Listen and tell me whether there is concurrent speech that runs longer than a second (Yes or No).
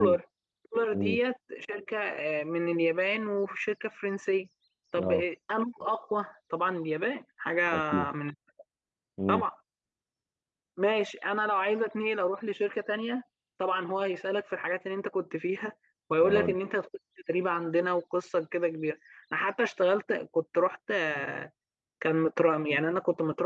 No